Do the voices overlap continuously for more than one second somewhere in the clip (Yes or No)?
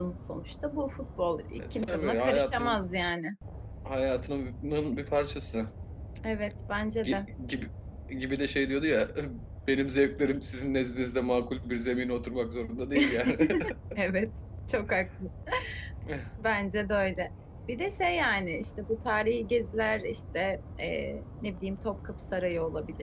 Yes